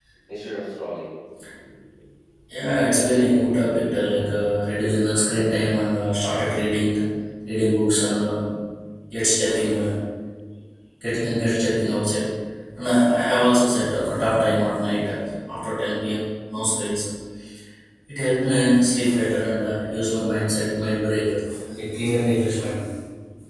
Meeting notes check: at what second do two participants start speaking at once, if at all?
2.8 s

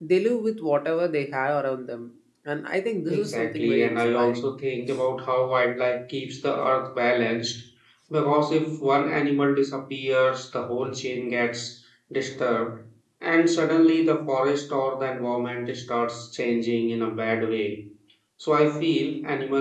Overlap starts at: 3.1 s

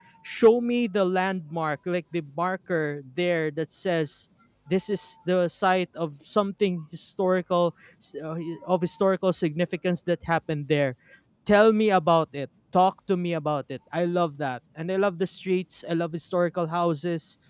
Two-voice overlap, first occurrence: none

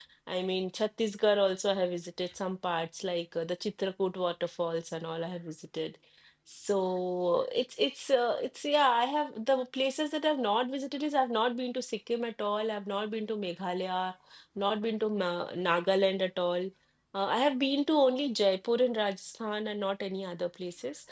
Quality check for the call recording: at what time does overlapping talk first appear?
none

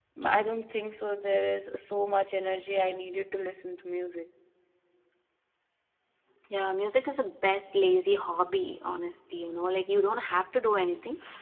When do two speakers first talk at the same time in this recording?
none

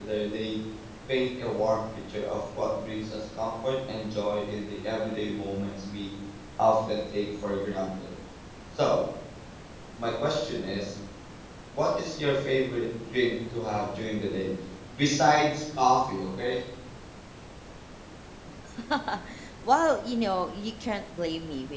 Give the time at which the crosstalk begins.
none

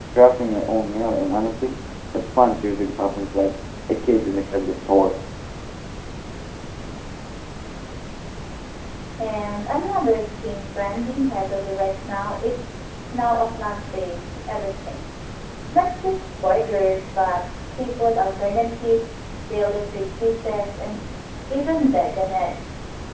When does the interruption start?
none

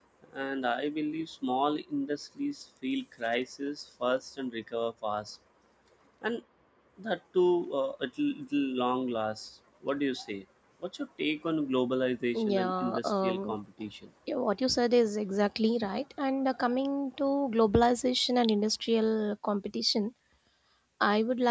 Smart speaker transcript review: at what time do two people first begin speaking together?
12.3 s

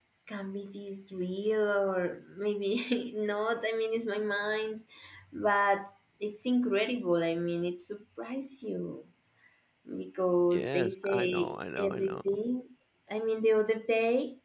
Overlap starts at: 10.5 s

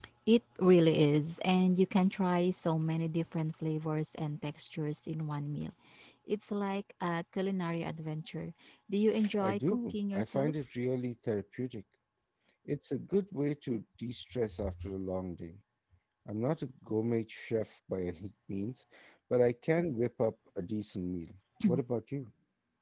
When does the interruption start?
9.4 s

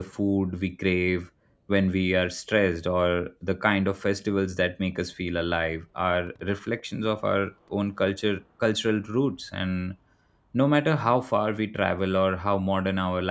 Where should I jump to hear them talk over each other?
none

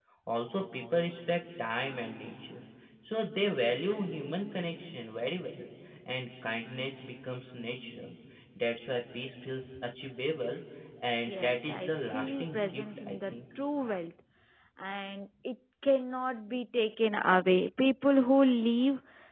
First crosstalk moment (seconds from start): 11.3 s

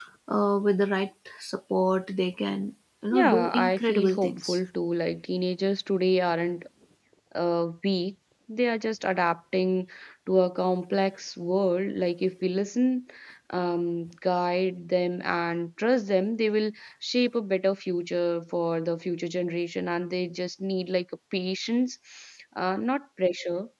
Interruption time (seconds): 3.1 s

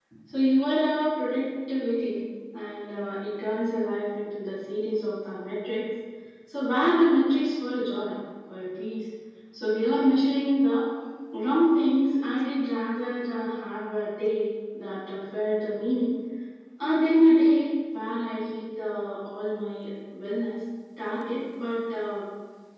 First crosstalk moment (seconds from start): none

